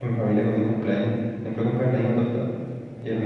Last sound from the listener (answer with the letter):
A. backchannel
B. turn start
A